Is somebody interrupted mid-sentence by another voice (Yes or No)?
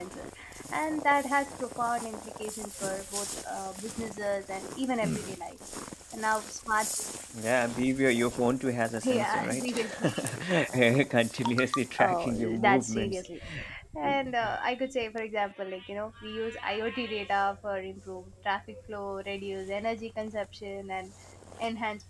Yes